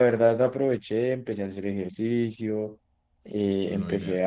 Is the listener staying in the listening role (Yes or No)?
Yes